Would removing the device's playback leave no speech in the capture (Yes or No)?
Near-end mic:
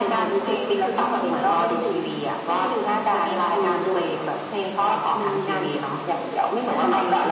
Yes